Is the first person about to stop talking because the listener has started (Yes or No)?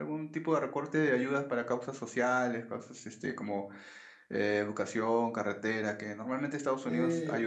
Yes